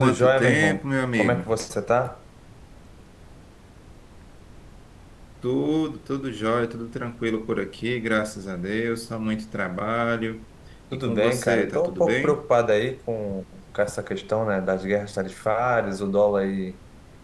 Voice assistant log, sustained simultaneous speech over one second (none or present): present